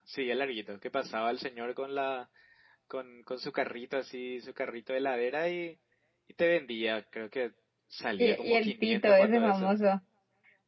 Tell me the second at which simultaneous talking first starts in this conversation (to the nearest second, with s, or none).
8 s